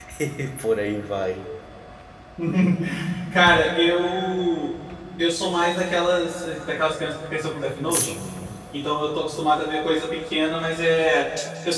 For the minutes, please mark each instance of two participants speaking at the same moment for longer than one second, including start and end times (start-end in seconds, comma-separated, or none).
none